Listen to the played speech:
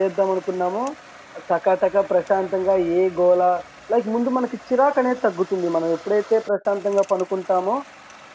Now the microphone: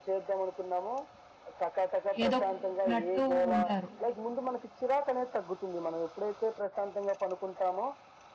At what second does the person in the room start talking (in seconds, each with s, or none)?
2.2 s